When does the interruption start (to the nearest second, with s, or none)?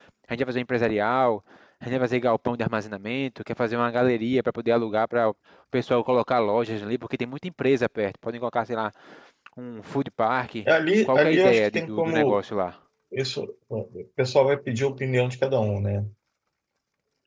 11 s